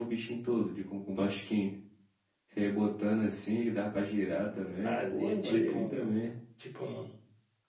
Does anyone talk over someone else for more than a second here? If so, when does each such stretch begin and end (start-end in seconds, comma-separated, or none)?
4.8-6.1